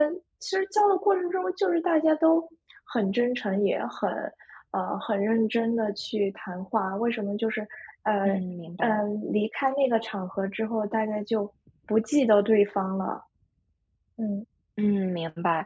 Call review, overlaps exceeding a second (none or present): none